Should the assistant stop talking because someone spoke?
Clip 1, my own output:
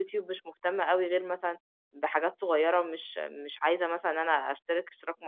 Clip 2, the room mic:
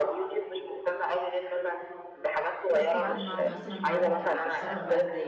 Yes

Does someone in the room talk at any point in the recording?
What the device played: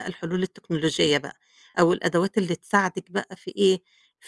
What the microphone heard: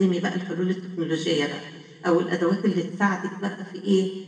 No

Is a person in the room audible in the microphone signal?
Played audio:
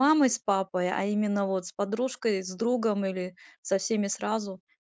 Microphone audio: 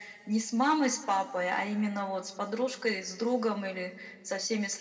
No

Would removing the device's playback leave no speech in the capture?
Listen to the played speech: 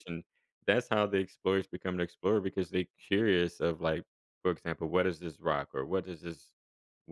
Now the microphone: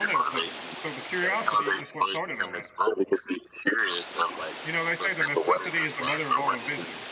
No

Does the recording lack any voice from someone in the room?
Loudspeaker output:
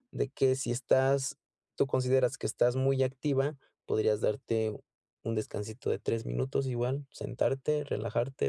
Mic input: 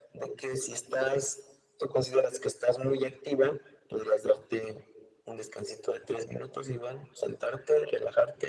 Yes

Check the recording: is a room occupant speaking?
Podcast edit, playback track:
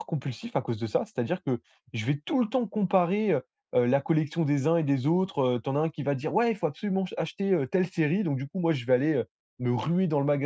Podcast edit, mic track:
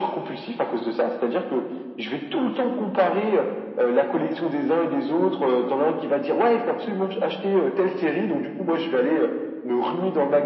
No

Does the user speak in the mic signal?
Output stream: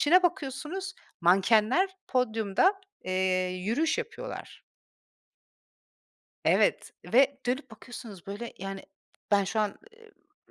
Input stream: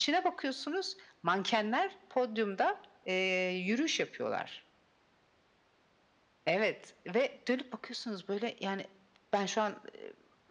No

